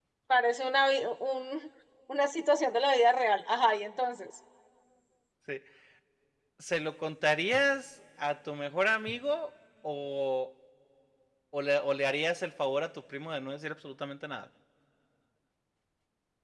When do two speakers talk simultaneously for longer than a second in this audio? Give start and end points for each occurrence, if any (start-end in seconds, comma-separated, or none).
none